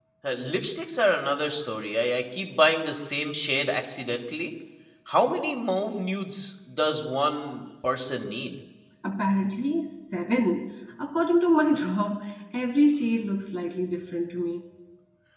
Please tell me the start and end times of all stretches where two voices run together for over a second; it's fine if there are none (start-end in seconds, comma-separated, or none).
none